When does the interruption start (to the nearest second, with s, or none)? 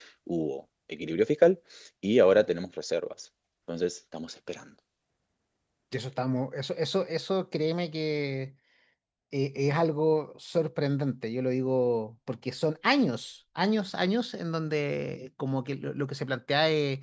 none